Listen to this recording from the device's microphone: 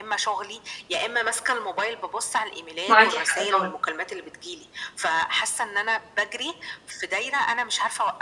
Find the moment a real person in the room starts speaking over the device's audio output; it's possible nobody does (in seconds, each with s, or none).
2.9 s